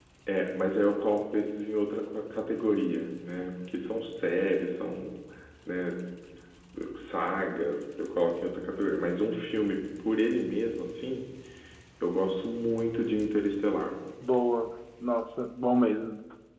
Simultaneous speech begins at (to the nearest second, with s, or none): none